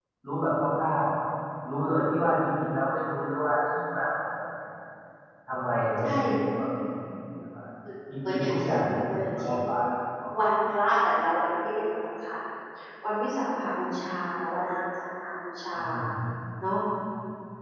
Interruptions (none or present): present